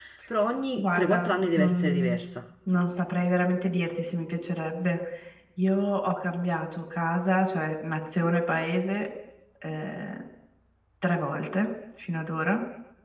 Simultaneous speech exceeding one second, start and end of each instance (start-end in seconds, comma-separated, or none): 0.8-2.2